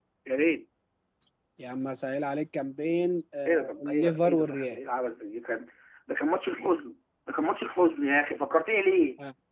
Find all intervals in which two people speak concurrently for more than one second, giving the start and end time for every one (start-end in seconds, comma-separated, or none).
3.5-4.8